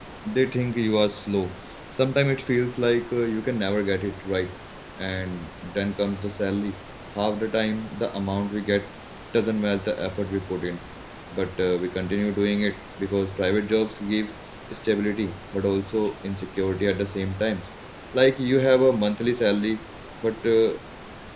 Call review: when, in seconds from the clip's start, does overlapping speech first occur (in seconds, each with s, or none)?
none